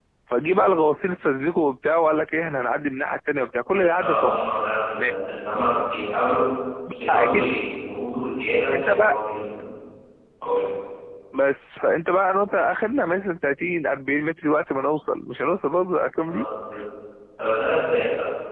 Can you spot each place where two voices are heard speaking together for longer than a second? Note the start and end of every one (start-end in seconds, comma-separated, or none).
none